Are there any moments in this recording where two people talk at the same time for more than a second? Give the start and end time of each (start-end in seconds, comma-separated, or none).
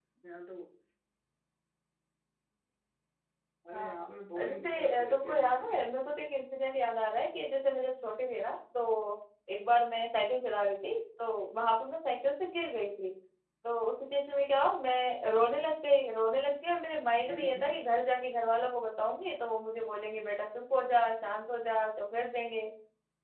4.5-5.7